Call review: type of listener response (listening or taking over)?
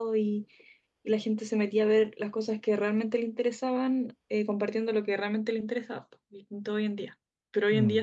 listening